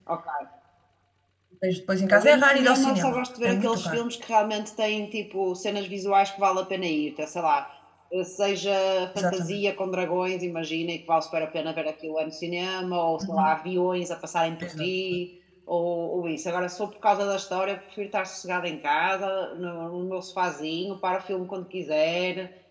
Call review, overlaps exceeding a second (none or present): present